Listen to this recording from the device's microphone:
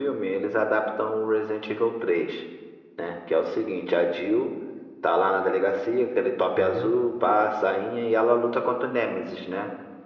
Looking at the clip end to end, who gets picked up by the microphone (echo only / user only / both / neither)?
both